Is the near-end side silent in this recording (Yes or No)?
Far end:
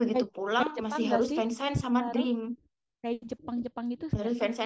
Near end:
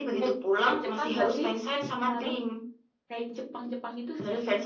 Yes